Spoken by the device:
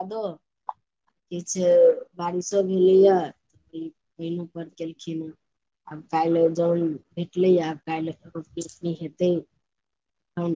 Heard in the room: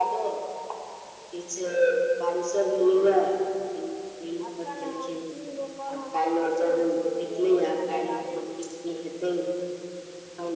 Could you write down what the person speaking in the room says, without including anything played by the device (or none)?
अखन हम तीन गो कल हमर फेके में चलि गेलिय ओहिमे बरबादे मऽ